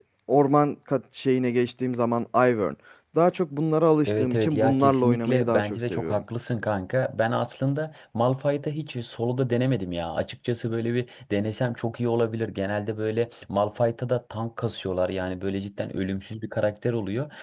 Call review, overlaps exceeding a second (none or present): present